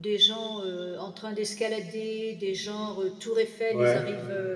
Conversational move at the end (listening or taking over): listening